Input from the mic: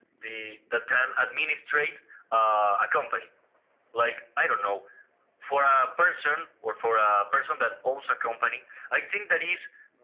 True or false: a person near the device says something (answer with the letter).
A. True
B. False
B